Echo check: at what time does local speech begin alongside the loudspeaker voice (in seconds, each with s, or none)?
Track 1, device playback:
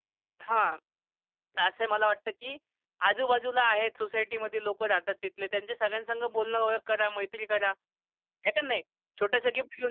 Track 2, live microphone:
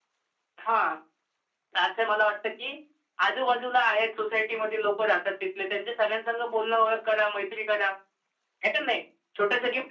none